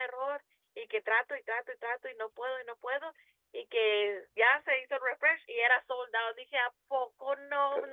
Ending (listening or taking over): taking over